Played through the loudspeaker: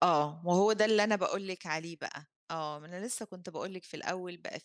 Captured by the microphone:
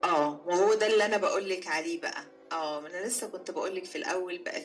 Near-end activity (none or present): none